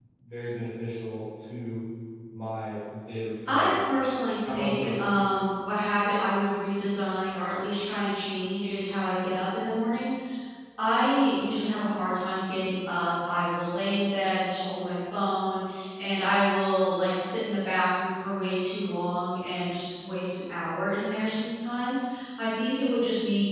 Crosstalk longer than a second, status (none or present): none